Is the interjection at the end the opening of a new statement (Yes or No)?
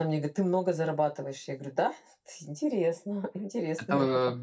Yes